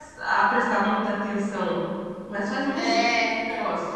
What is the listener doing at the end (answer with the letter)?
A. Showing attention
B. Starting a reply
B